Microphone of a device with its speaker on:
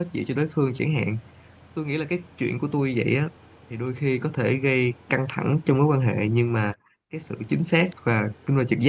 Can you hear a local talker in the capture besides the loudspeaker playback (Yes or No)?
Yes